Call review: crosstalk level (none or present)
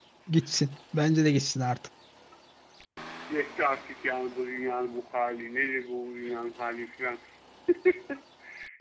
none